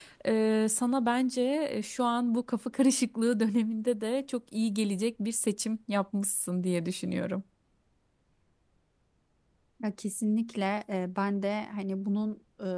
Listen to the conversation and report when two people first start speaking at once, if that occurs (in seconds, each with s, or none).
none